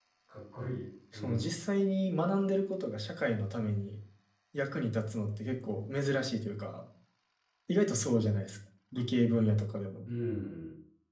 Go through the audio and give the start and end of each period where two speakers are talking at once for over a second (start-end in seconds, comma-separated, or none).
none